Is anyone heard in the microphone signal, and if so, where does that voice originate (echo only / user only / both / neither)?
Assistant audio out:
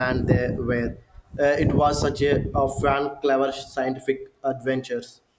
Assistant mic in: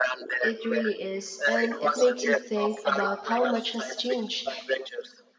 both